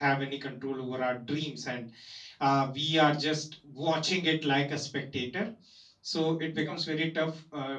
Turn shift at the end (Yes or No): No